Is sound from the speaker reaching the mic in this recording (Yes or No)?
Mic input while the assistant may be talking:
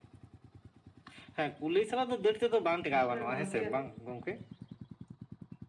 Yes